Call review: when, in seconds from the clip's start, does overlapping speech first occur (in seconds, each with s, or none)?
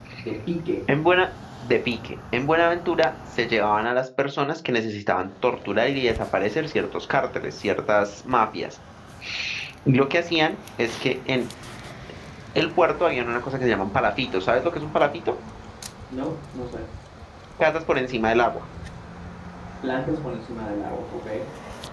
none